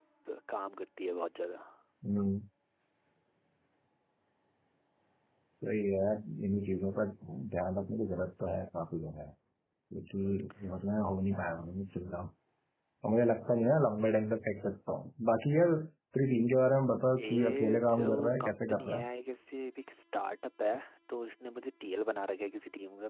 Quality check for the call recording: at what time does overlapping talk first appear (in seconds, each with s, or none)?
17.2 s